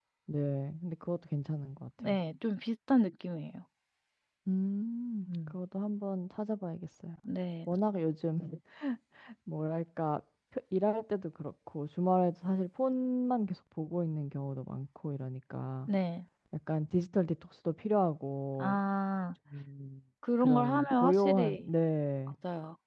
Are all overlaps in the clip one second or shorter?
No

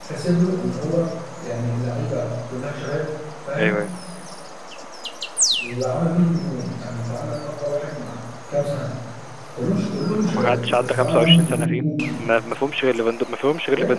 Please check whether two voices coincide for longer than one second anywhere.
Yes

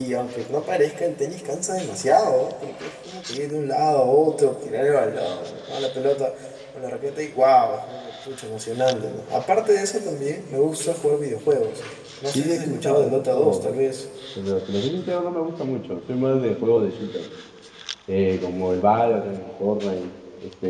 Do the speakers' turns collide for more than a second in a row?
Yes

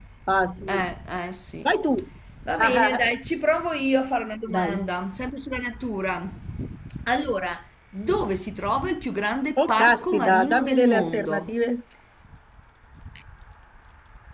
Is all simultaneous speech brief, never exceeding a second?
No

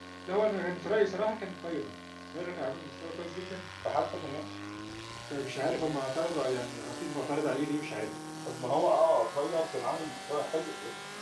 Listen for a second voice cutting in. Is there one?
No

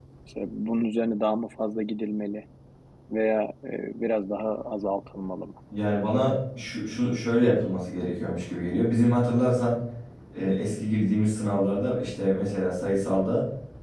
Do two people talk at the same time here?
No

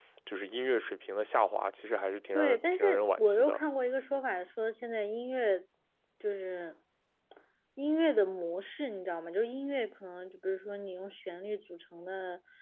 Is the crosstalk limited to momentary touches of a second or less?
No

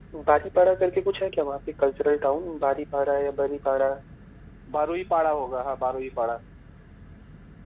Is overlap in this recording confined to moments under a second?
Yes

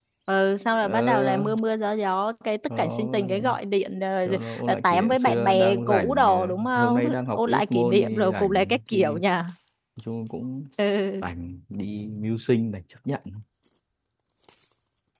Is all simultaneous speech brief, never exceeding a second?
No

